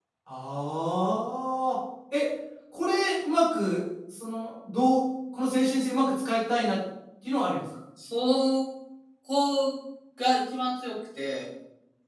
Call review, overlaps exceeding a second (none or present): none